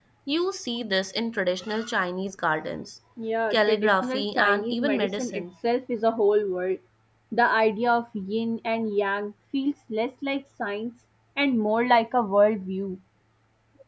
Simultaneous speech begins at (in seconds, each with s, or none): 3.5 s